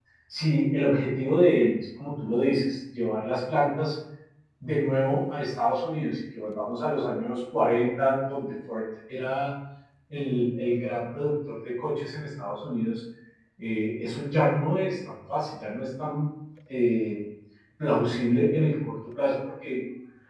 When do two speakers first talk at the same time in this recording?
none

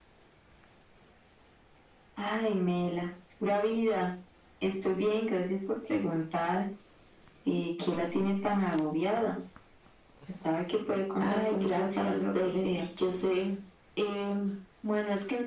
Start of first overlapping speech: 11.2 s

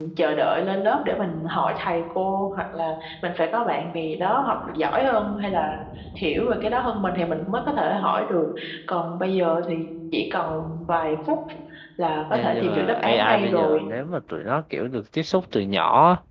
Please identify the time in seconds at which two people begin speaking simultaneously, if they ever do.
12.3 s

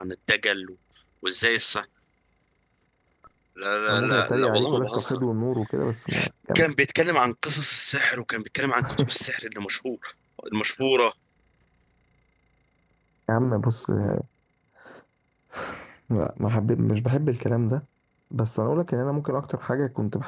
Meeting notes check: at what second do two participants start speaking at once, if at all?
3.9 s

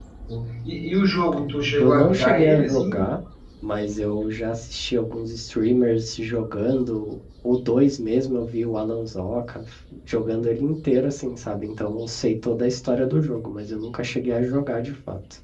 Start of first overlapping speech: 1.8 s

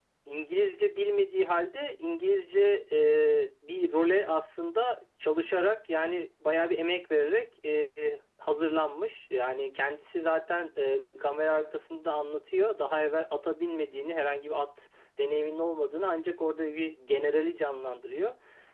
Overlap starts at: none

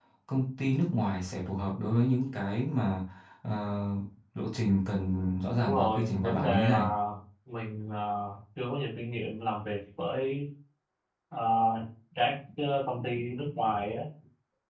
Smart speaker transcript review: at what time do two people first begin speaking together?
5.6 s

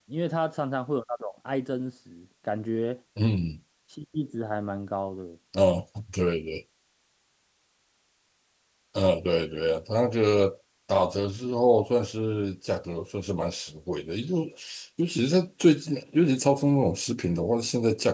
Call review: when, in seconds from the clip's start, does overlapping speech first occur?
none

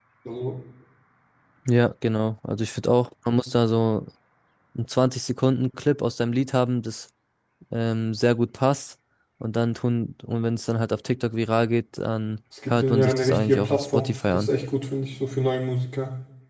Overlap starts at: 12.6 s

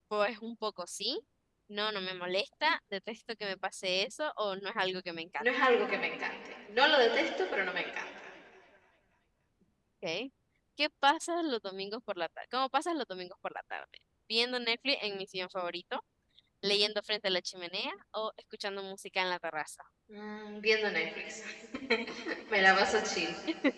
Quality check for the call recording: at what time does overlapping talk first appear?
none

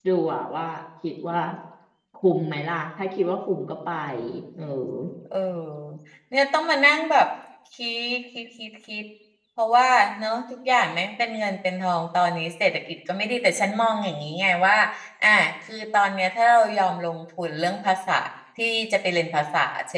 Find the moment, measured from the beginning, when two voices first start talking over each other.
none

